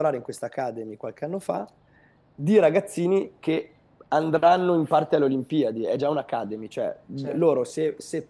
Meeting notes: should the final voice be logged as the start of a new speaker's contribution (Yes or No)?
No